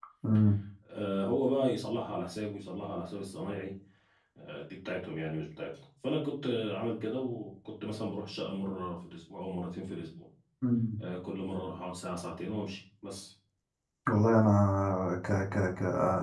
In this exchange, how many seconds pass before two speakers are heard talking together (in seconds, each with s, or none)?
none